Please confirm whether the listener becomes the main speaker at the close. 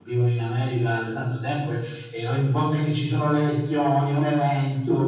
Yes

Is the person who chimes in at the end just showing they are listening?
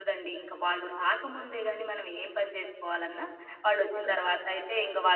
Yes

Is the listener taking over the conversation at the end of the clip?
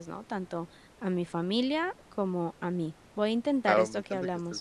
Yes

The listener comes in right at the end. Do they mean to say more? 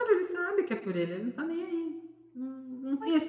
No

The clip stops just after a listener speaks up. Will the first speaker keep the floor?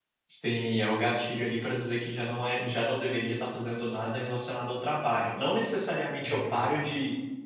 Yes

